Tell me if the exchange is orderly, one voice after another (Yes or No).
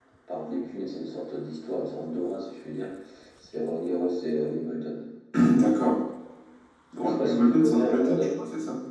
No